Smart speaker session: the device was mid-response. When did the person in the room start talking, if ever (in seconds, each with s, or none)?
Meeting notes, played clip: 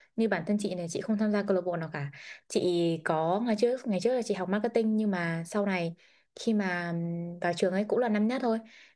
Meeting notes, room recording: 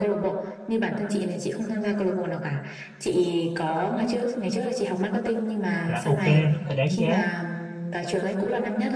5.8 s